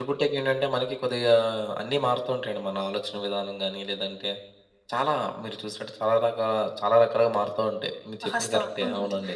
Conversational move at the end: taking over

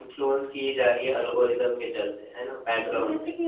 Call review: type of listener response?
taking over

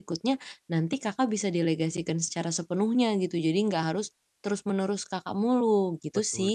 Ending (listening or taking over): taking over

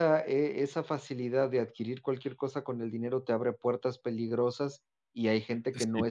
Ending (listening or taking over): listening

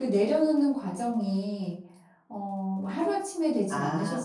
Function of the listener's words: taking over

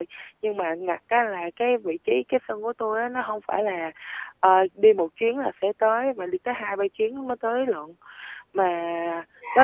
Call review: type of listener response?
listening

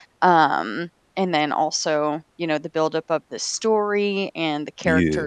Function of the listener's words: listening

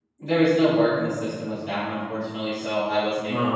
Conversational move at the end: listening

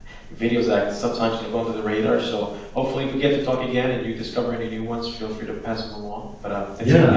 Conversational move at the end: taking over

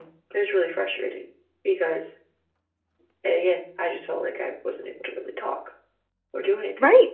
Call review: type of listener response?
taking over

